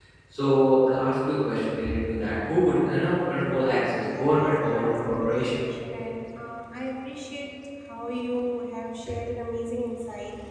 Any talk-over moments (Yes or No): Yes